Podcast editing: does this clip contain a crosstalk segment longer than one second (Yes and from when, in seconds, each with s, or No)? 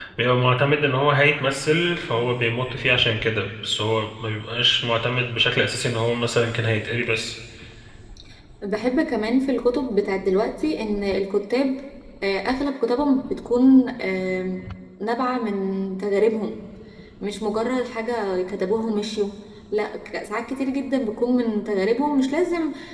No